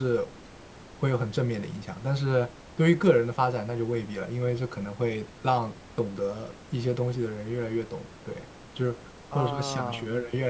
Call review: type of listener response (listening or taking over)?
listening